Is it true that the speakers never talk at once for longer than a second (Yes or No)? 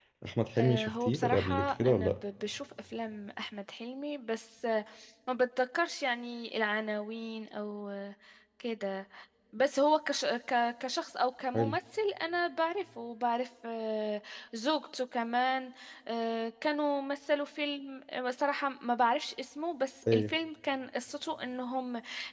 No